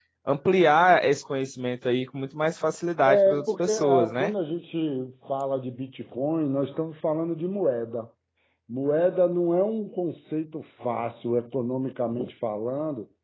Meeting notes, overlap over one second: present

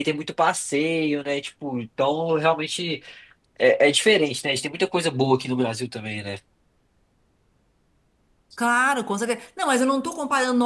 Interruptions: none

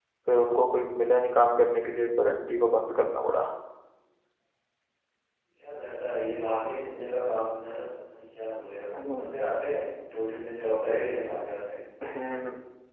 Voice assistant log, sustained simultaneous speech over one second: none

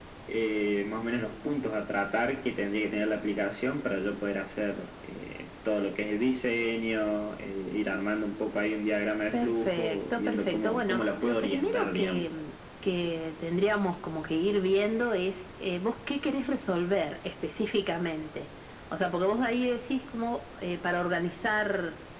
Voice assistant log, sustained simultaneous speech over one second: present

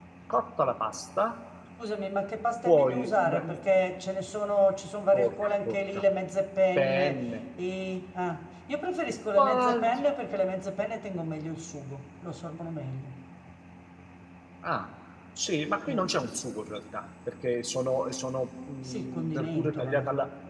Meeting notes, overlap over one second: present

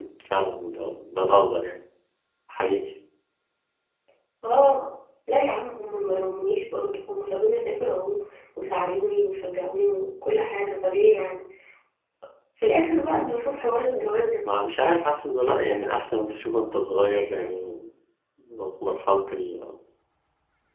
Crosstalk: none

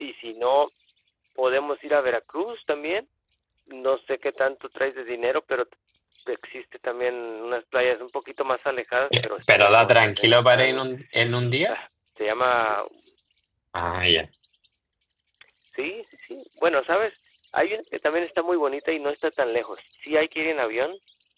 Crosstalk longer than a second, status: present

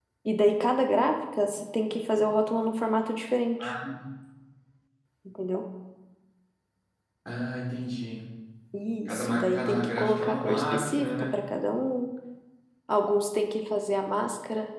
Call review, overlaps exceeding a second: present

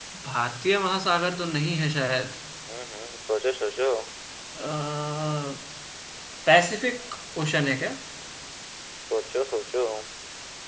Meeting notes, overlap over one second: none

